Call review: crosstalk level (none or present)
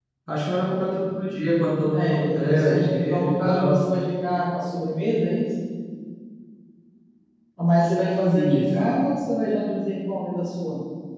present